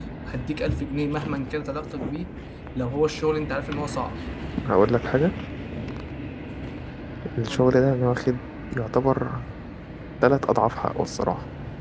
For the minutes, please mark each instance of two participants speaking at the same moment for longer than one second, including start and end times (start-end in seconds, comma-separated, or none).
none